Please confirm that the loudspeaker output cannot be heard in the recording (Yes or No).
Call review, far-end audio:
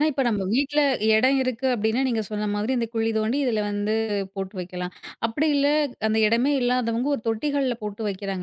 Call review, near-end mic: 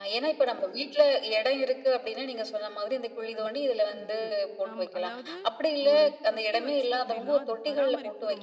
No